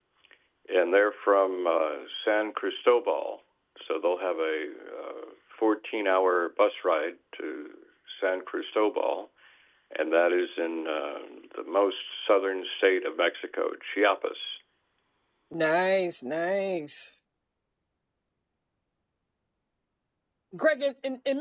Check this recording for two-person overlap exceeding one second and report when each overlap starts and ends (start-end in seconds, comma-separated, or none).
none